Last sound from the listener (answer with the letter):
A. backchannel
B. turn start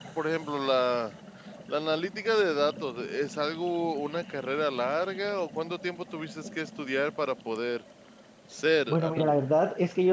B